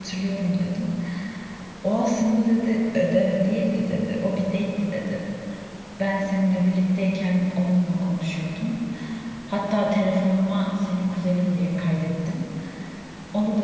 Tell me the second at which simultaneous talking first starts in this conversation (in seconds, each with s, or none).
none